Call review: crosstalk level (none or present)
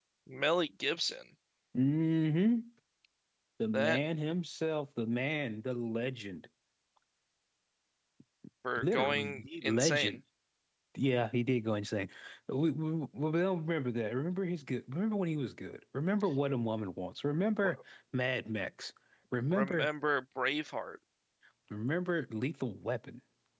present